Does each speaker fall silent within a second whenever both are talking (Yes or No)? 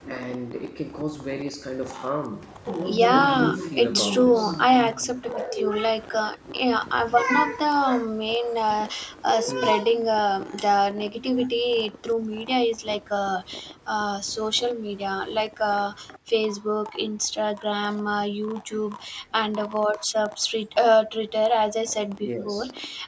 No